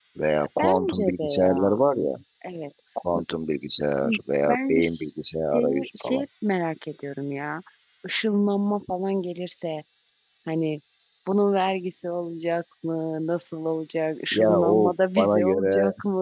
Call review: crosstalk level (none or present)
present